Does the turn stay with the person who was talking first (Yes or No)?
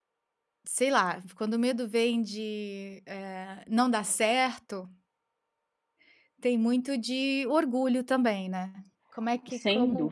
No